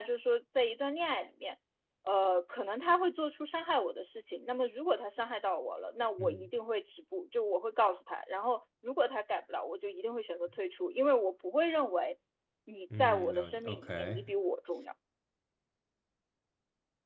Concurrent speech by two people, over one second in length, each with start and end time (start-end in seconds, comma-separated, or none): 13.0-14.3